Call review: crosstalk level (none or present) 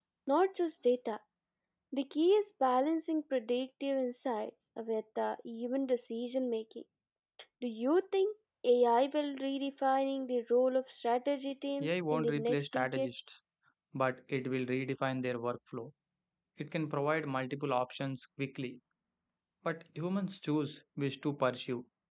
present